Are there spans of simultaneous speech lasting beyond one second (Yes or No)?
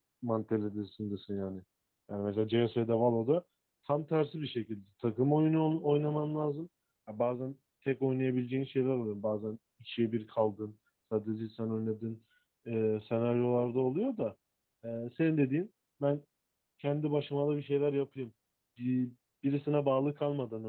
No